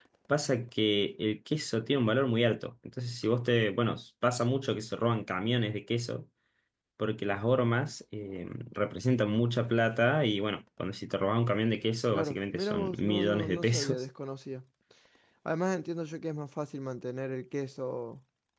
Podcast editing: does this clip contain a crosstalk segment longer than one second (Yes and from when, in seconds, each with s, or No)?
Yes, from 12.1 s